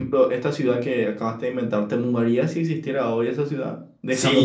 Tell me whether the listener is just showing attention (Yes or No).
No